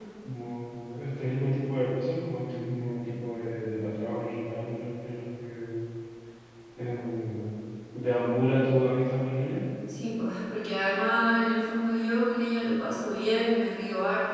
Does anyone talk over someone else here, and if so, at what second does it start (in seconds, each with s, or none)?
none